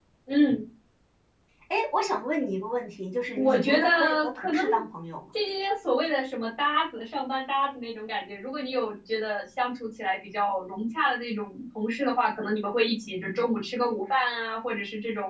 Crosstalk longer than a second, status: present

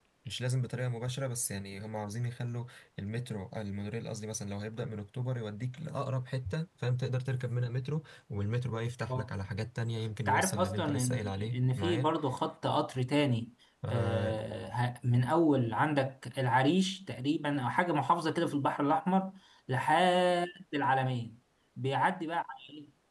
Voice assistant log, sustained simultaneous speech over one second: present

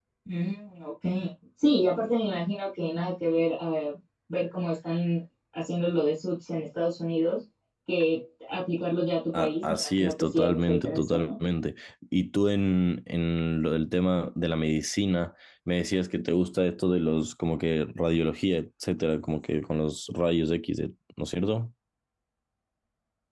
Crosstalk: present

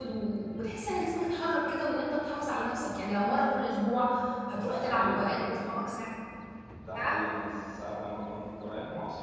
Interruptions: present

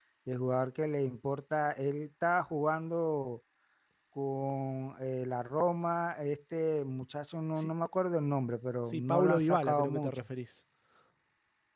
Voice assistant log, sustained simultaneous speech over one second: present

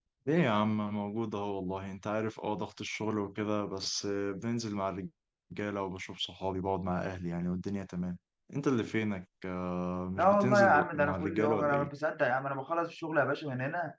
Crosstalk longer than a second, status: present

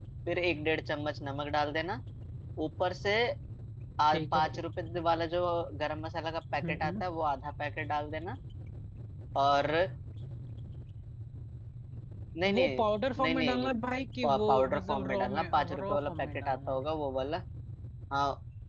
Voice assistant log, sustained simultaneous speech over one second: present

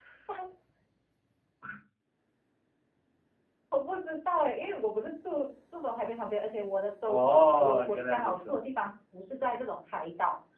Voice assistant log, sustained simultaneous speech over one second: present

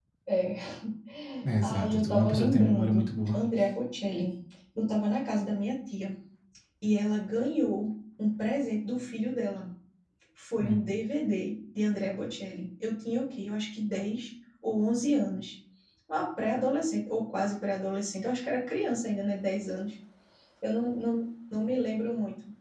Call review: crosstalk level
present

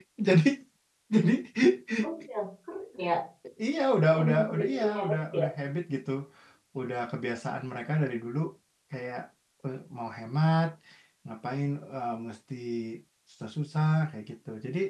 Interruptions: present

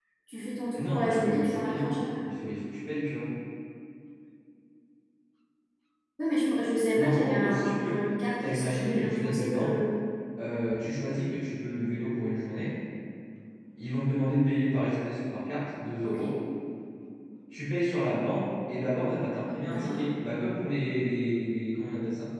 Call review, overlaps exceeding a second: present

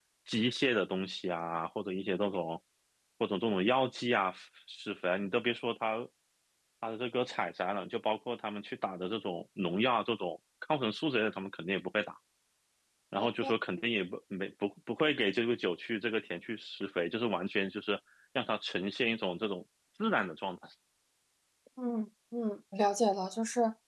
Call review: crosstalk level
none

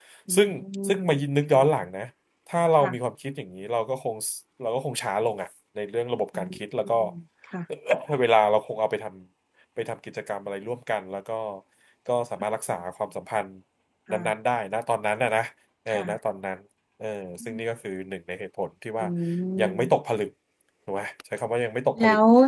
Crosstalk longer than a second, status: none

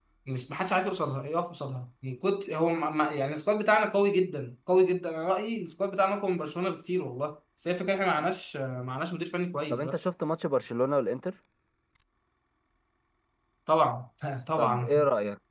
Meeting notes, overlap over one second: none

